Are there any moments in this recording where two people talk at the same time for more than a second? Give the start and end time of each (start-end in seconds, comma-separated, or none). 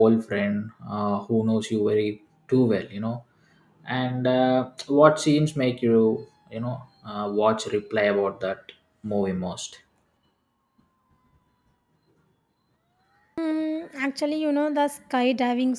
none